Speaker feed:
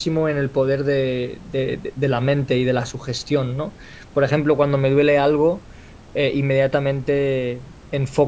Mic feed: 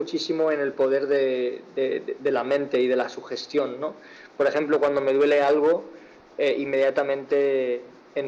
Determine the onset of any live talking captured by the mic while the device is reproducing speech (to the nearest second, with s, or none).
none